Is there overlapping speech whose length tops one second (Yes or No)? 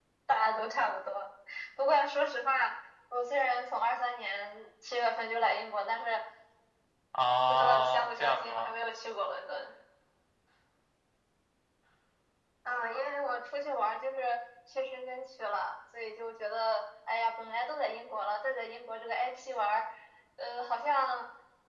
Yes